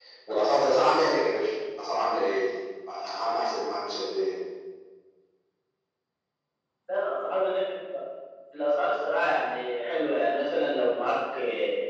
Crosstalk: none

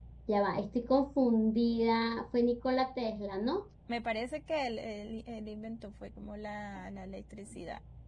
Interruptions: none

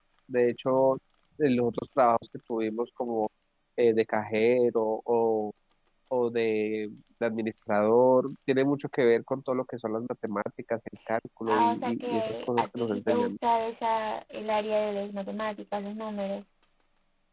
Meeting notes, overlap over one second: present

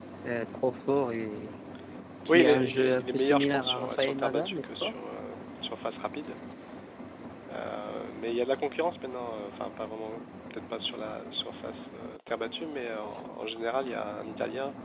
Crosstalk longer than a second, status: present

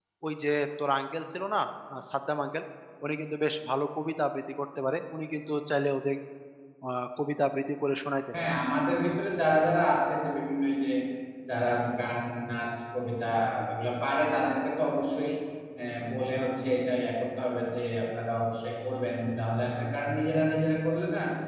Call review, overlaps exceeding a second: none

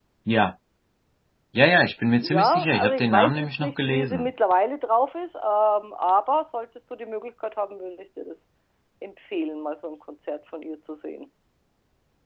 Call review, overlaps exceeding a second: present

